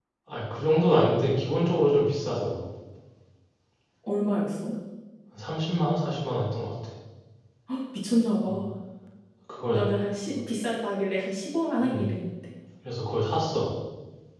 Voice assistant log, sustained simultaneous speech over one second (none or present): none